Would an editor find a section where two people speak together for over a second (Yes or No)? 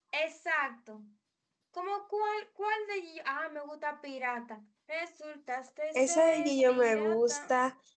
Yes